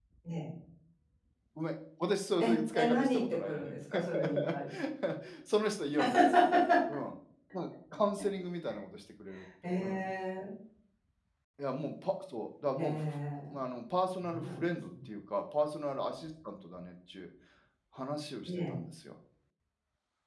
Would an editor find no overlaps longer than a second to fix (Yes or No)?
No